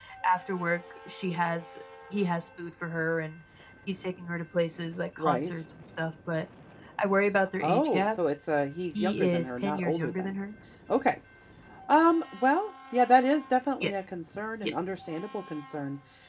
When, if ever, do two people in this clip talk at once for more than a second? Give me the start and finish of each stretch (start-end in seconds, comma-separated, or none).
8.9-10.3